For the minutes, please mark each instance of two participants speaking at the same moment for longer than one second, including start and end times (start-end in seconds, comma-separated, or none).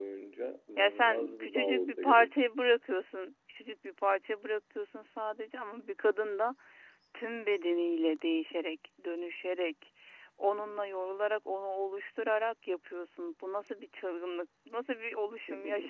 0.8-2.3